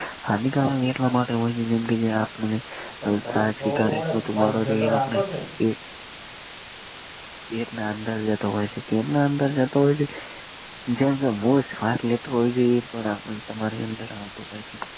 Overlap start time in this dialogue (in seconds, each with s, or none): 3.1 s